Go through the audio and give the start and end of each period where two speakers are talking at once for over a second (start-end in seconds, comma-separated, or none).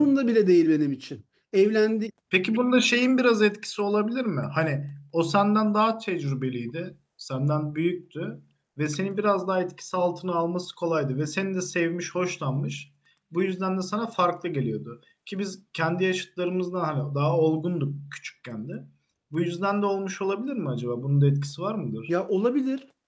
none